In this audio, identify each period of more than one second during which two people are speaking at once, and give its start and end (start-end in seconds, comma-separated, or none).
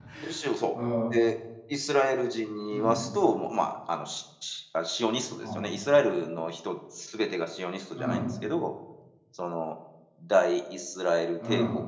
none